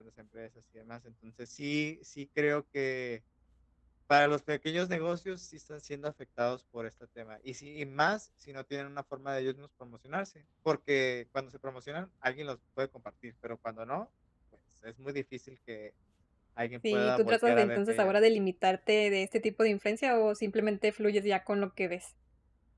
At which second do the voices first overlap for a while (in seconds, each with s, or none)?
16.9 s